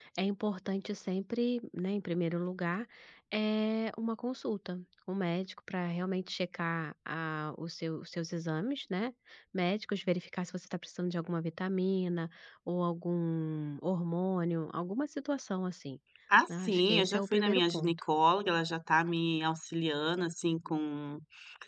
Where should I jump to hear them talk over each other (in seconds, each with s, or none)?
16.6 s